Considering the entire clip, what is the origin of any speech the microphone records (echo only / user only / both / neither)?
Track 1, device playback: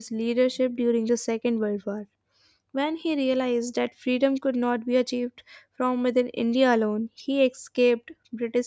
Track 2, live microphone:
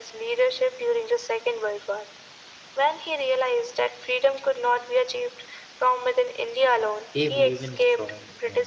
both